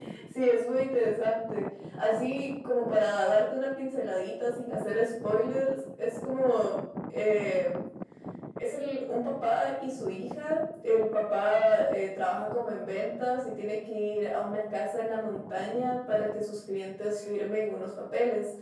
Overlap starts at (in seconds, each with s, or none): none